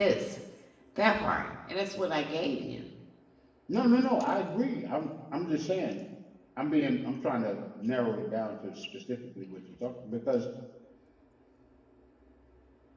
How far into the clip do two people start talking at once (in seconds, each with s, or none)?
none